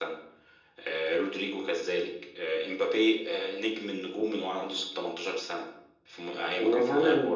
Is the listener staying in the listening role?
No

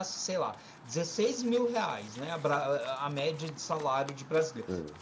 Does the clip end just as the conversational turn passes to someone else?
No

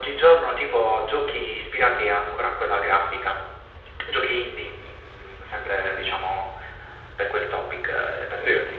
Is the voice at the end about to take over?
No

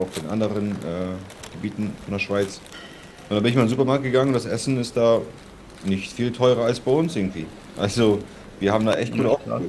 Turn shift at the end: No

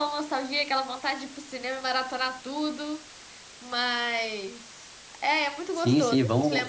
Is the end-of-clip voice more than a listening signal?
Yes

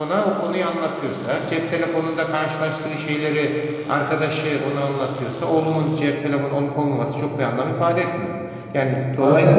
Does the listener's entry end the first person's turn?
Yes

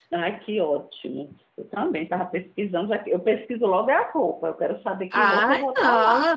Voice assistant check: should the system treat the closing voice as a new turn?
Yes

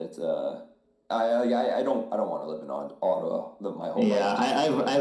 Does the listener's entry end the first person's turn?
Yes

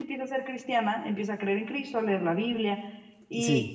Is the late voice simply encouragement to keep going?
No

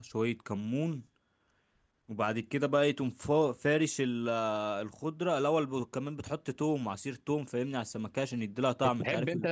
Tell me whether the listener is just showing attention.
No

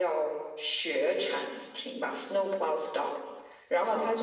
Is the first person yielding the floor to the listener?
No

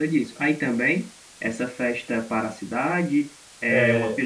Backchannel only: Yes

